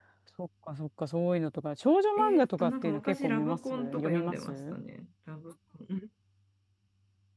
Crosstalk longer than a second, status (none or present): present